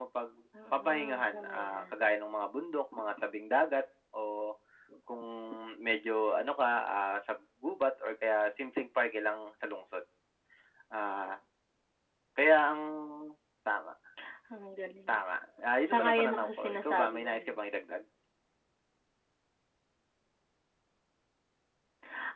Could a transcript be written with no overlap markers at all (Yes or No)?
No